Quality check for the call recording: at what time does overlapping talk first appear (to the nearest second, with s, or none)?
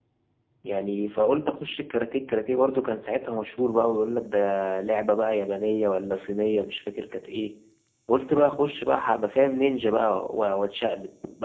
none